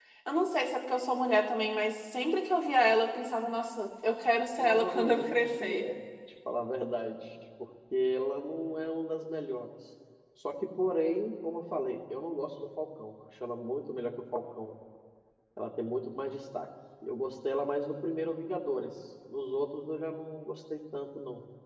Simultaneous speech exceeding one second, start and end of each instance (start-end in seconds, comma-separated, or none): 4.6-5.8